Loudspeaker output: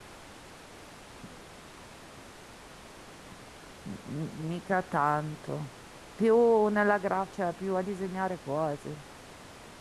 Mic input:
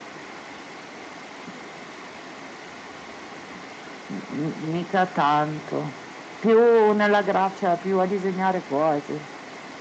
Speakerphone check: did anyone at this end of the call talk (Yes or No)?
No